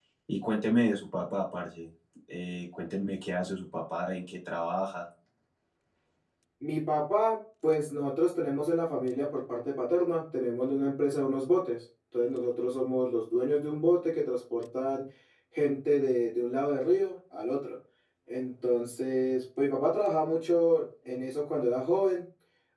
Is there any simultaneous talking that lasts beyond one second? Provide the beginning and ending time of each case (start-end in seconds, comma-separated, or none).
none